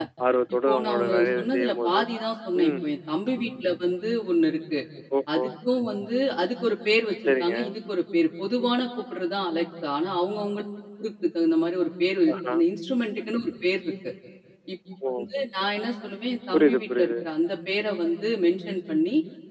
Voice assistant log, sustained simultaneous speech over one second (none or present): present